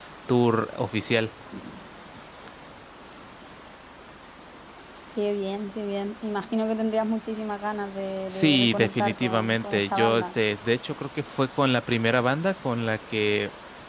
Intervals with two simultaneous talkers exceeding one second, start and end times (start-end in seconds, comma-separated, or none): 8.3-10.3